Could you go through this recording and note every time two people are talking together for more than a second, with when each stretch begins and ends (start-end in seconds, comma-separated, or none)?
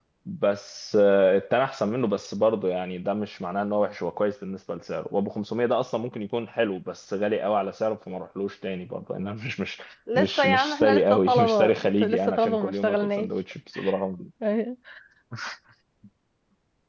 10.2-13.3